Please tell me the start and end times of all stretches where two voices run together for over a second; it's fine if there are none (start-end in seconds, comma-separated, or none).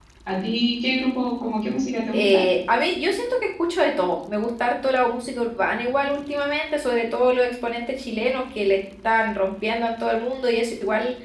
none